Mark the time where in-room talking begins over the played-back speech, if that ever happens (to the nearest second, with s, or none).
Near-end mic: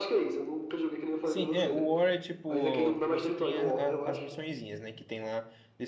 1 s